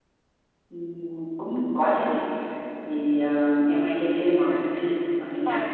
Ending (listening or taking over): taking over